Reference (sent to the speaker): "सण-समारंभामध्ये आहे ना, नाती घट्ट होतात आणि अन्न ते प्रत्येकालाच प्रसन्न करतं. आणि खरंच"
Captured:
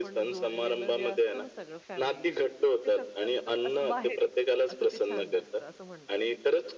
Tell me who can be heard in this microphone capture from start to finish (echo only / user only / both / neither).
both